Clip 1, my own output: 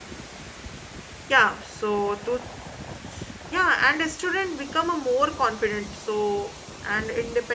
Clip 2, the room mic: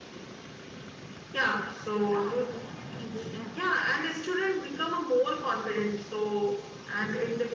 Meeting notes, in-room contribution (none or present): present